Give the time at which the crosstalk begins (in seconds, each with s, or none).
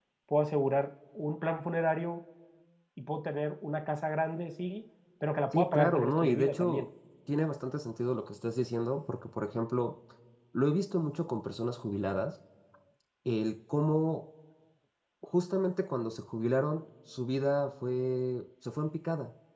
5.5 s